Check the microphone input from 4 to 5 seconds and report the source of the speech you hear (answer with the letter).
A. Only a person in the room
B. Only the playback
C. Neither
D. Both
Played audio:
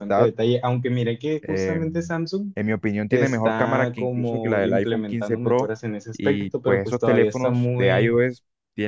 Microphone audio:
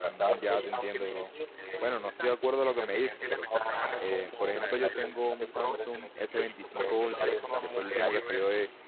D